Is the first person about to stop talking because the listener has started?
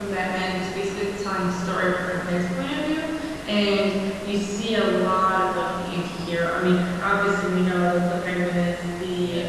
No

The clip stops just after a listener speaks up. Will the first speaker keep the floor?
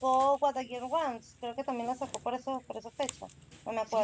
No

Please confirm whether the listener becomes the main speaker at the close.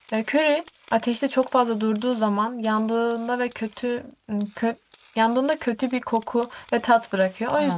No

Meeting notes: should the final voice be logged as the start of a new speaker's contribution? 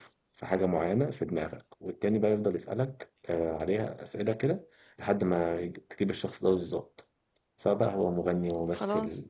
No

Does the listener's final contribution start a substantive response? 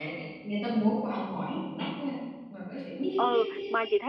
Yes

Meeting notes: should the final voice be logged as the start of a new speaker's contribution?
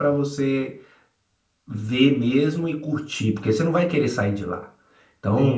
No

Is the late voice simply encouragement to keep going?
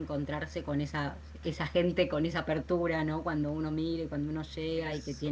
Yes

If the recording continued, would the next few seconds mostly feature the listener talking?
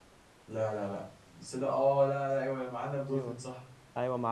Yes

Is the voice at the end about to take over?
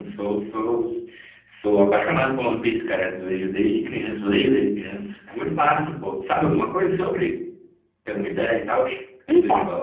Yes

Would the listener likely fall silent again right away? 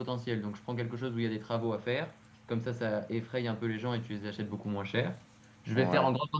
Yes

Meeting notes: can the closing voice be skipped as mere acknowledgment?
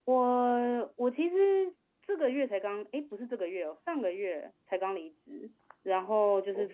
Yes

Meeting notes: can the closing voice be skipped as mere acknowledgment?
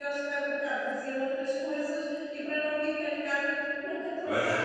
No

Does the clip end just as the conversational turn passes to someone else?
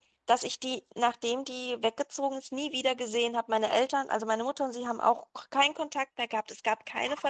Yes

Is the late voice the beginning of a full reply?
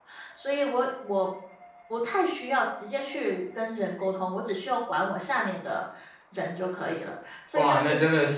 Yes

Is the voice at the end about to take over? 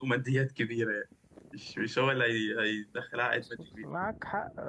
Yes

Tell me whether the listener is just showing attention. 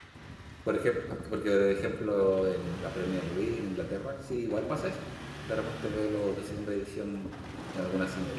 Yes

